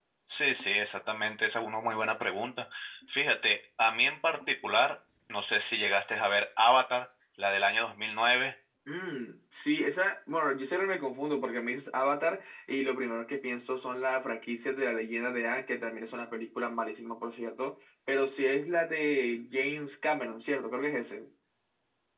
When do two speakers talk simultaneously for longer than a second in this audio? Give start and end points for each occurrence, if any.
none

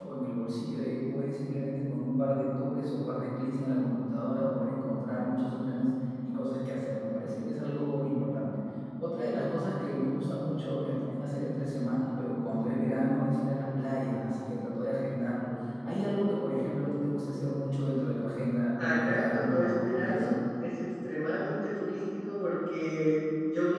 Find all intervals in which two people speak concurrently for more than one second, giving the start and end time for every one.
18.8-20.2

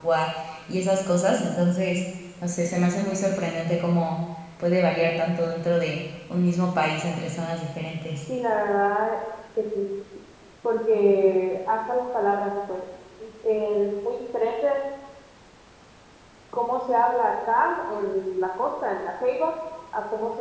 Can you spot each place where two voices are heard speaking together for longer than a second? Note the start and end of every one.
none

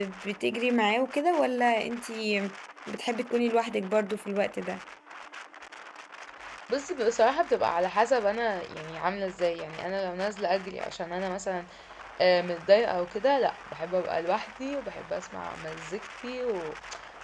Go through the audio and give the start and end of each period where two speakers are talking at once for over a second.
none

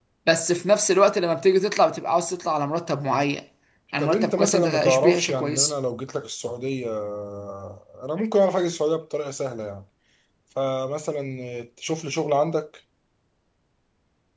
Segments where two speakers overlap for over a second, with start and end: 4.0-5.7

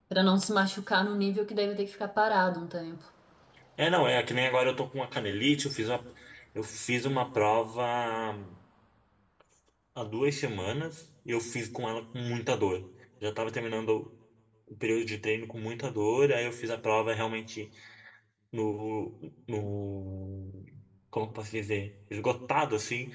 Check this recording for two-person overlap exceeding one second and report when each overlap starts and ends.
none

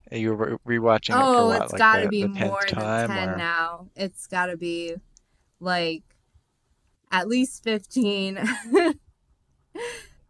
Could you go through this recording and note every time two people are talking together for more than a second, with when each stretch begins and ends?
1.1-3.4

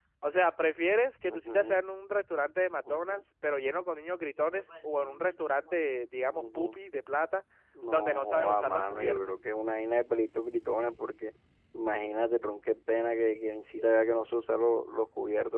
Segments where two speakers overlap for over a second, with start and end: 7.9-9.2

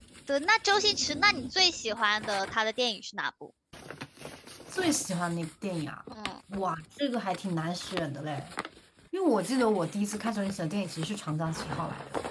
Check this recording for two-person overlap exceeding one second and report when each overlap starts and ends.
none

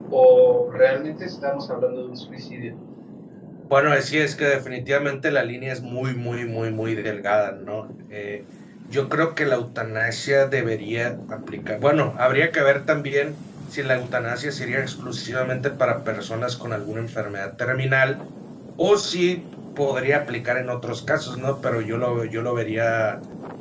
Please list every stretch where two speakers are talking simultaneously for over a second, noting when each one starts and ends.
none

